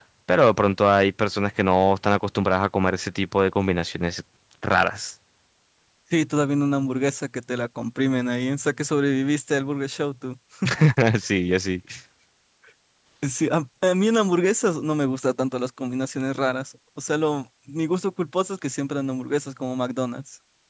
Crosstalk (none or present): none